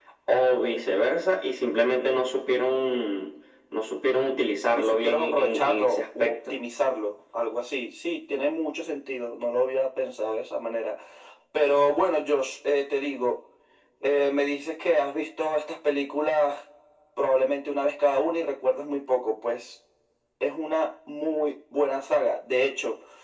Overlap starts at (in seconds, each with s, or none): 4.7 s